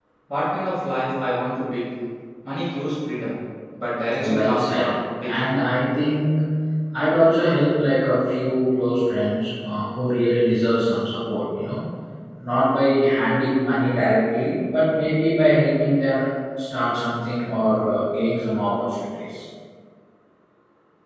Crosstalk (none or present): present